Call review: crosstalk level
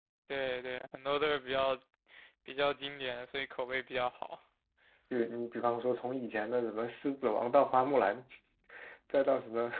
none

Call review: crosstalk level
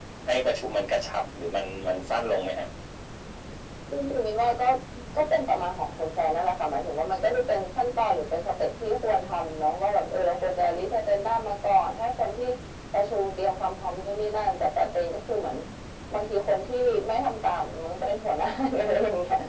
none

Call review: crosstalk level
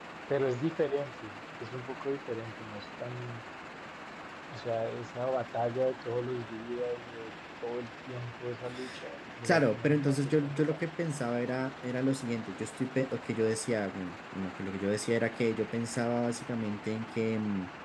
present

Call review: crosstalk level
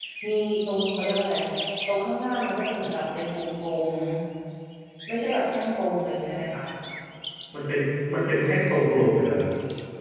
none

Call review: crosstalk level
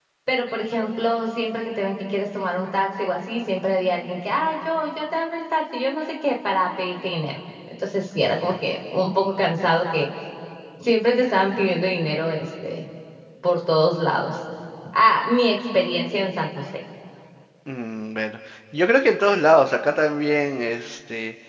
none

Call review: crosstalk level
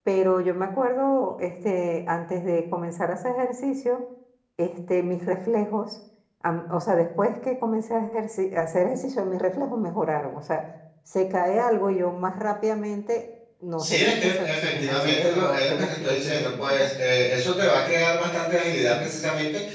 present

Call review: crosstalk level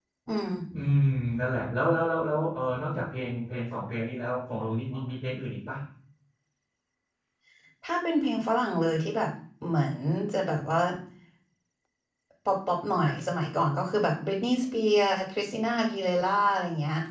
none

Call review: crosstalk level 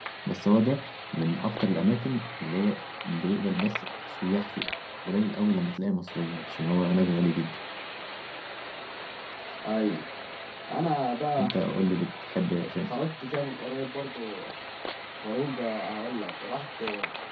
none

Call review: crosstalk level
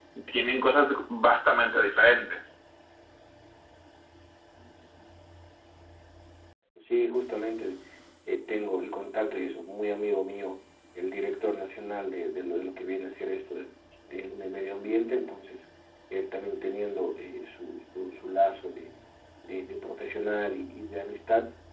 none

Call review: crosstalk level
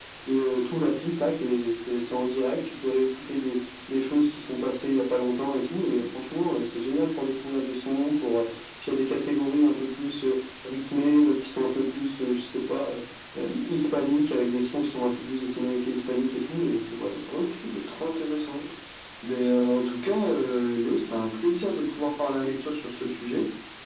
none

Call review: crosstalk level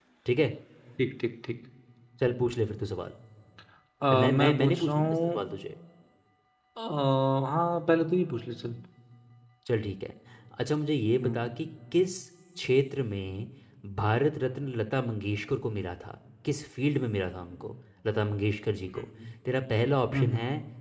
present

